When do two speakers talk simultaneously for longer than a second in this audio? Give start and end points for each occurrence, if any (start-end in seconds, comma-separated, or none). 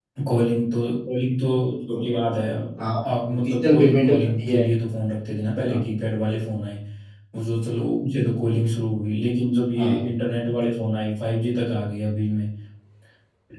3.3-4.6